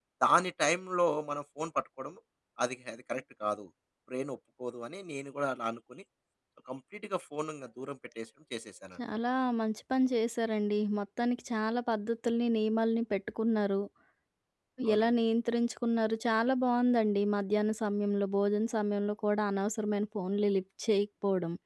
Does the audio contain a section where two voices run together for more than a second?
No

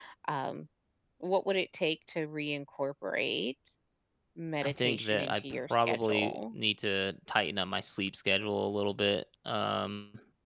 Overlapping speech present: Yes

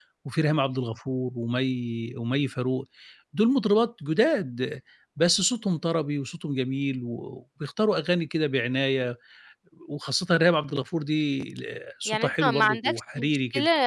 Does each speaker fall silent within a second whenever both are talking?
No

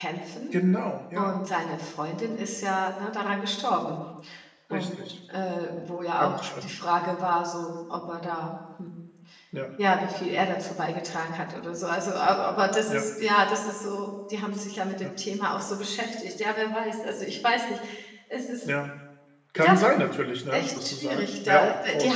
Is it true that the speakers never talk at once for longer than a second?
No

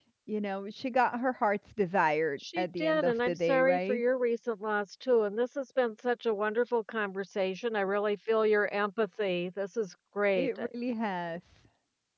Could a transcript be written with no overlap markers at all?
No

